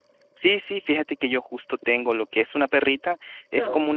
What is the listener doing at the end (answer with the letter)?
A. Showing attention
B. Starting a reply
A